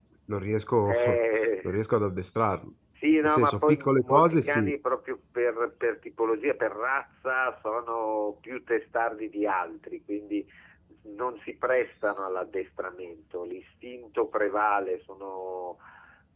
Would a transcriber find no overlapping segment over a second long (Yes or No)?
No